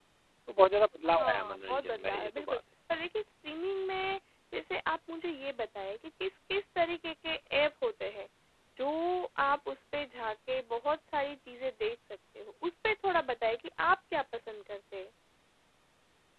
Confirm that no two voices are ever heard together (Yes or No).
No